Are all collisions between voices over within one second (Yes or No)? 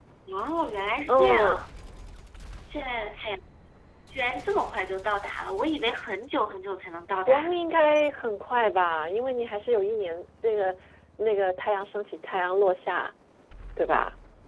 Yes